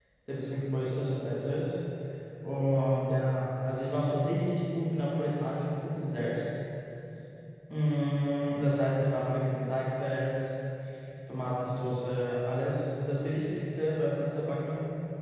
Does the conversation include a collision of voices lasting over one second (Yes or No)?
No